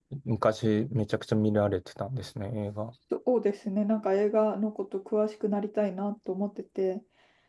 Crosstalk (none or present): none